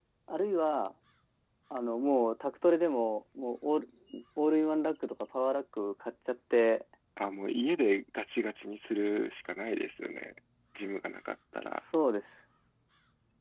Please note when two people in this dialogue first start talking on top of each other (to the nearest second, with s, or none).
none